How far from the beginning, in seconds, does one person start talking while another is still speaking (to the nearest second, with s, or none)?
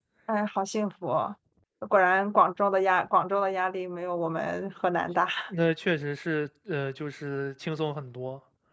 none